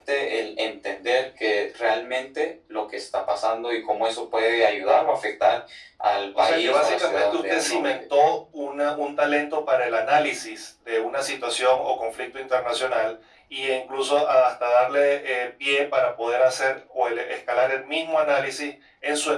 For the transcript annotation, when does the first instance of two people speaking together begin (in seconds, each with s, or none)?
6.4 s